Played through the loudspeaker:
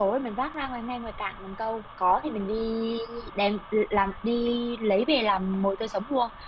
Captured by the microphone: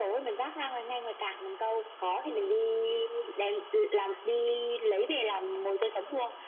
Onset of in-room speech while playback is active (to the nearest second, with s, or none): none